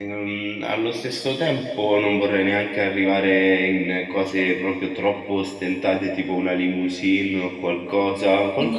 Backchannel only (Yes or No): No